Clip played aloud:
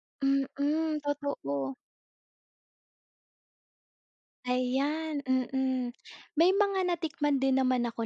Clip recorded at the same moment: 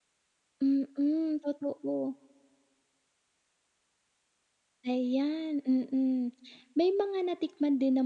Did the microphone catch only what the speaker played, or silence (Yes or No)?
Yes